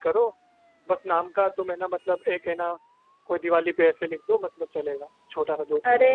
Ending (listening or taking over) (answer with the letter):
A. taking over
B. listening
A